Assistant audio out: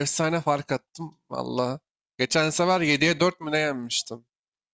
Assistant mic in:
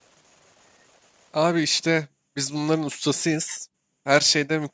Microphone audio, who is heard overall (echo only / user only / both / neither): user only